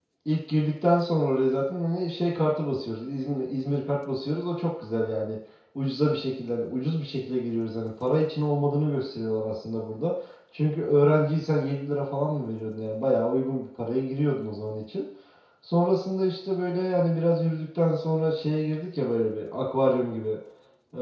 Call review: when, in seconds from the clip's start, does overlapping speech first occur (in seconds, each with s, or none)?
none